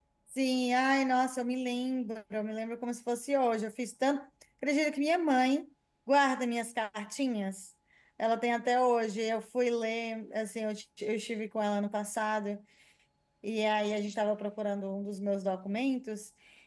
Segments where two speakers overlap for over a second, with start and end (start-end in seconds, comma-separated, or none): none